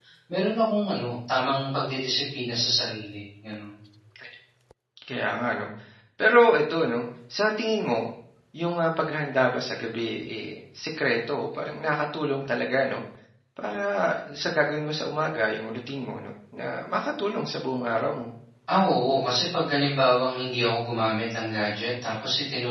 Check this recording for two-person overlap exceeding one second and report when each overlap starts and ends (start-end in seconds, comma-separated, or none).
none